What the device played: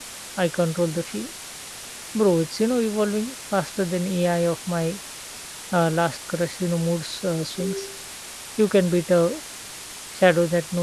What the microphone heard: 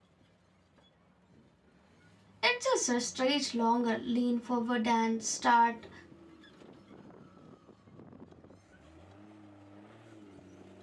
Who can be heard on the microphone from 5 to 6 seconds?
user only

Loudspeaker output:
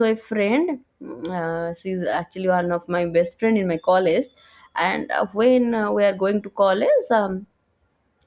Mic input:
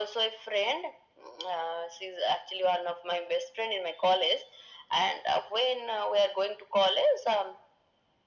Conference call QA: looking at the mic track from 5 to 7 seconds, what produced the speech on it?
echo only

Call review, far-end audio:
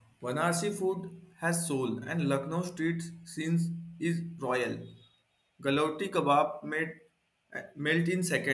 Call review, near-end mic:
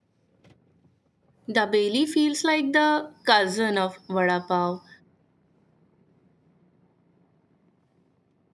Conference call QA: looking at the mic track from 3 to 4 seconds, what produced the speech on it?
user only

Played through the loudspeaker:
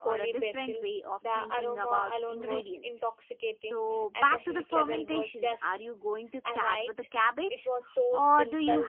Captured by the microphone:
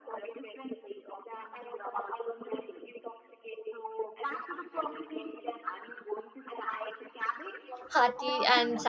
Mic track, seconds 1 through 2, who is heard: echo only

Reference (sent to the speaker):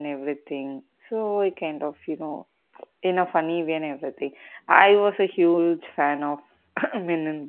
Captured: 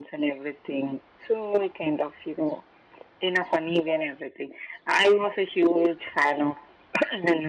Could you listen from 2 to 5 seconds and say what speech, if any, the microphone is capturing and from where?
echo only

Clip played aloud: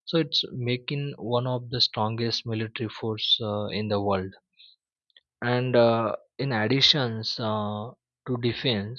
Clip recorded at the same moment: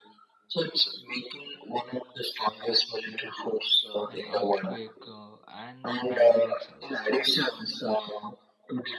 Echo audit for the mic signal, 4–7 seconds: both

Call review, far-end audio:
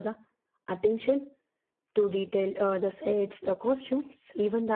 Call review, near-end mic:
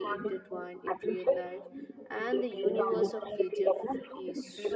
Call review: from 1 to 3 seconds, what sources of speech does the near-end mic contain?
both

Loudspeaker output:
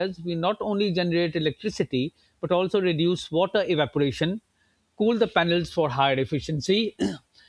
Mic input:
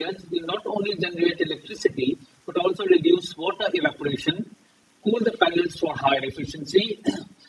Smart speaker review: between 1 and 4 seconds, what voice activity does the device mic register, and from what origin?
echo only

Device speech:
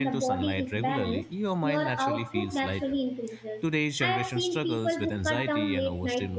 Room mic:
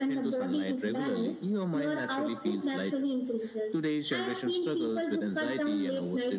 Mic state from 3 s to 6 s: echo only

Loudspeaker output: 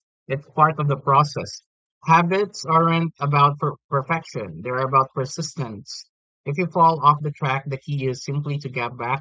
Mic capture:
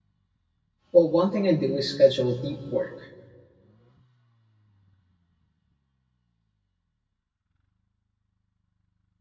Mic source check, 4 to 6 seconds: neither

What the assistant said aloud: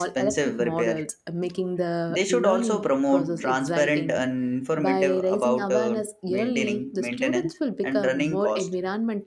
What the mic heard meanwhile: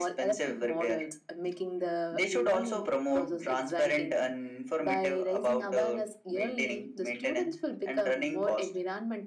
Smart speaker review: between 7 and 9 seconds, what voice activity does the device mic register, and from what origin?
echo only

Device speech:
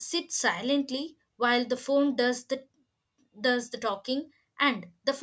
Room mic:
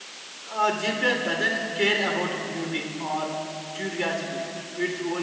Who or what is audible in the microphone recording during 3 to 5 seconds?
user only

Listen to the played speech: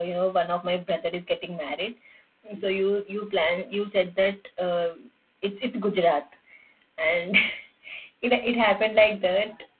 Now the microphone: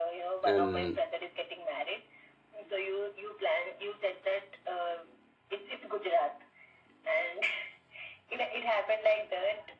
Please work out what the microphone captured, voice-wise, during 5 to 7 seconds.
echo only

